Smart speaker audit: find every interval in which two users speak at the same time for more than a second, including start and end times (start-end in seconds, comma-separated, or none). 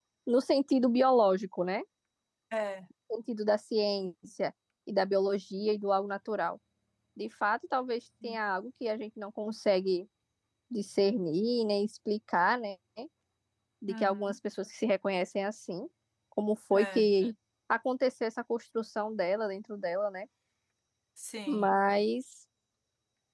none